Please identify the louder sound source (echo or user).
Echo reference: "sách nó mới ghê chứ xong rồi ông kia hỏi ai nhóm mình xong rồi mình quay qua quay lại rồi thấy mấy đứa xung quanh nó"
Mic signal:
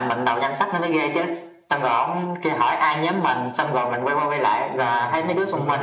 echo